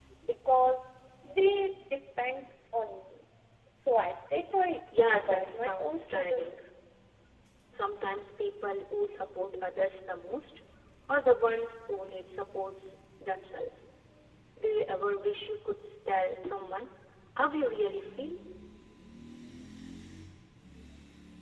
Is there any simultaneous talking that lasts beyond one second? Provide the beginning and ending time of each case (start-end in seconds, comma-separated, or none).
5.1-6.6